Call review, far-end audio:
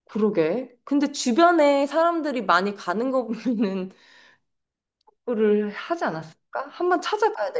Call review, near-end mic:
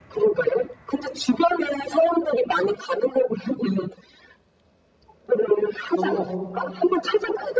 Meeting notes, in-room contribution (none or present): present